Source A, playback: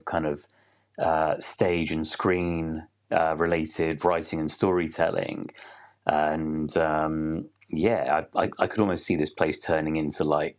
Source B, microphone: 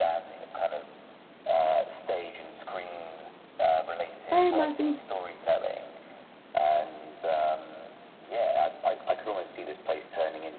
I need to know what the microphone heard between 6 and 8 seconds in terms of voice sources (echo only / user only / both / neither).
echo only